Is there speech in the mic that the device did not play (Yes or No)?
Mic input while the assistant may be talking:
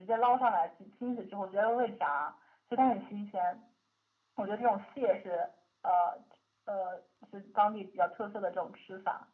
No